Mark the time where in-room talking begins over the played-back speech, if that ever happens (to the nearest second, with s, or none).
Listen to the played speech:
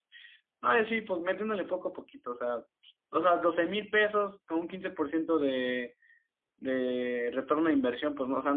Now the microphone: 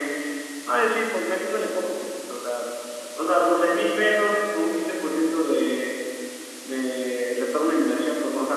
none